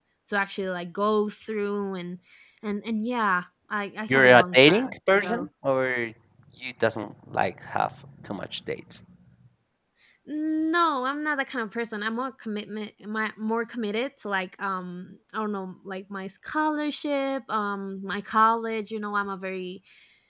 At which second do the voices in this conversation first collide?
4.1 s

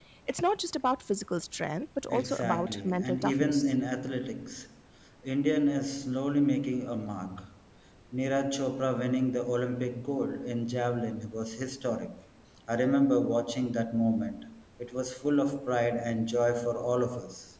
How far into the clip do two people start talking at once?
2.1 s

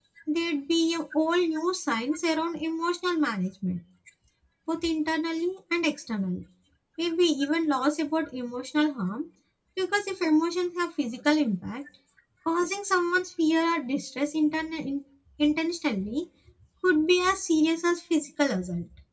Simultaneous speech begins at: none

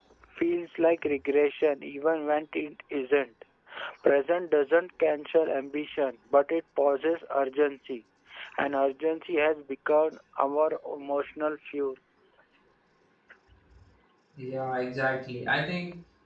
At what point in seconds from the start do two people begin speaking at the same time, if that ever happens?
none

